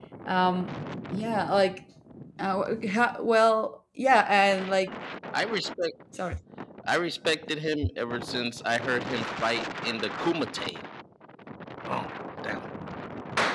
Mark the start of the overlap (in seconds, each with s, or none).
none